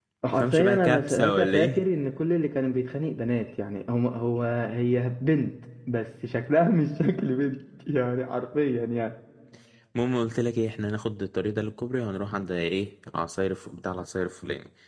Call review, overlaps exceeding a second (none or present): present